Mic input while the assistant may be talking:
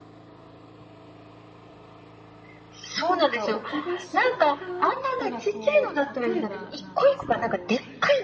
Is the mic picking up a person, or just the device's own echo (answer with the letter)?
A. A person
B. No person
A